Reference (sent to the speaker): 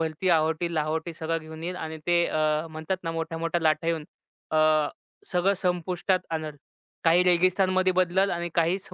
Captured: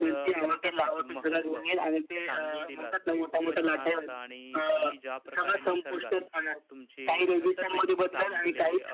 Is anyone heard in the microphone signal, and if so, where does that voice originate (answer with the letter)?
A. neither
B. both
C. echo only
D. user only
B